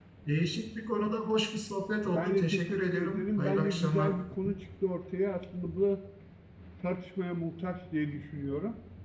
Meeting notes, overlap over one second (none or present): present